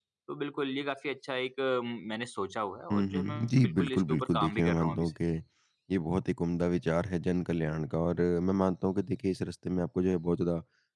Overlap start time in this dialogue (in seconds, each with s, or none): 2.9 s